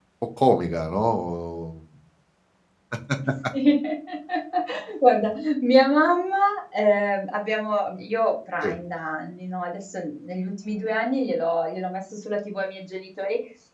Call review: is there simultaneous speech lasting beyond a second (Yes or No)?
No